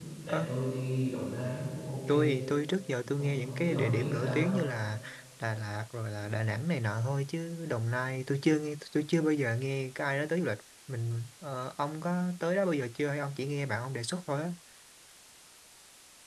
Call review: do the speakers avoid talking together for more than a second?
No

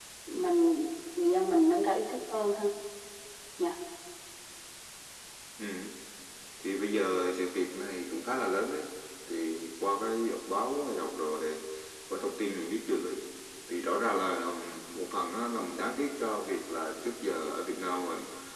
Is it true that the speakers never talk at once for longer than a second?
Yes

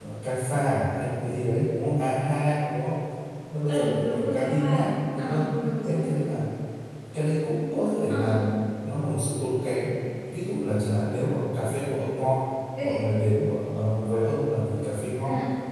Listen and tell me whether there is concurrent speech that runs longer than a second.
Yes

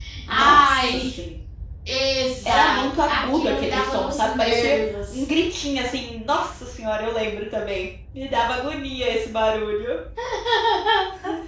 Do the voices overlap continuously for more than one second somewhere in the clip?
Yes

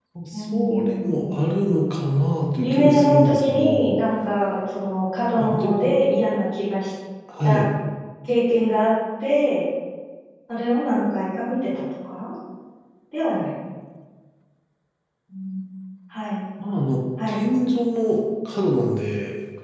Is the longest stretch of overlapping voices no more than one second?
No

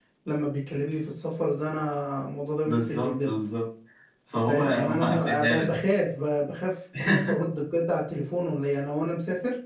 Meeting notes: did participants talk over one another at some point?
Yes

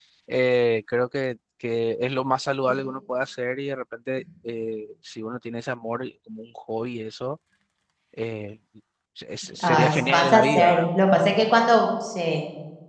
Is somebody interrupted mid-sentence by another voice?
Yes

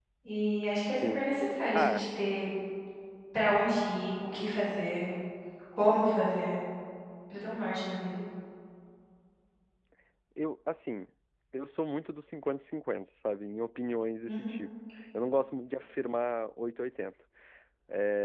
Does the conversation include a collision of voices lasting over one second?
No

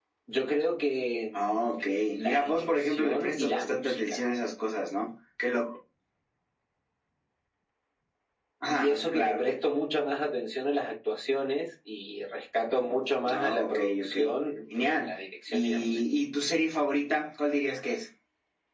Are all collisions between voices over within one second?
No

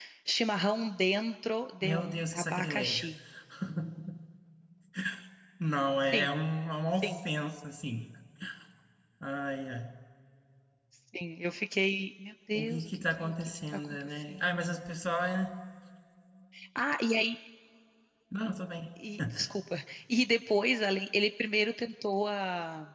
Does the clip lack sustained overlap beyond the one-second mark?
No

